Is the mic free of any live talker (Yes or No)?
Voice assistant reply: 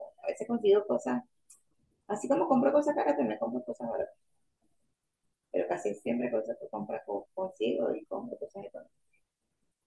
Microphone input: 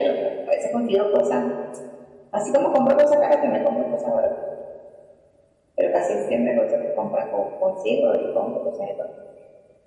Yes